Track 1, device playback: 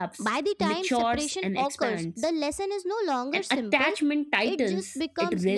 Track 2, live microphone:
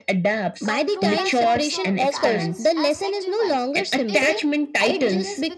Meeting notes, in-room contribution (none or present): present